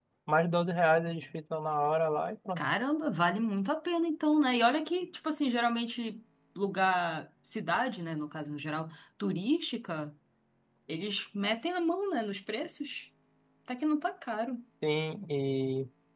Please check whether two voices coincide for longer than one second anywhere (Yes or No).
No